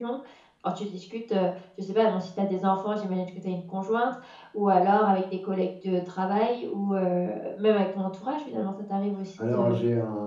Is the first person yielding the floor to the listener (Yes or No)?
Yes